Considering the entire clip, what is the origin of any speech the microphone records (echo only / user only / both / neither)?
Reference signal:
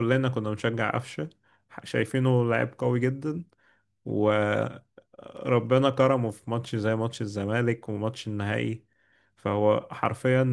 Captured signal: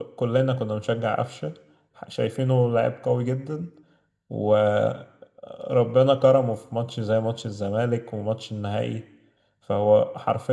echo only